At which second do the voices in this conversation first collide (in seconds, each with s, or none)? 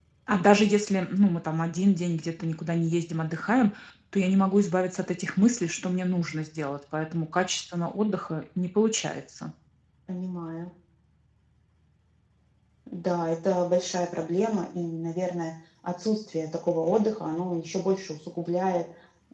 none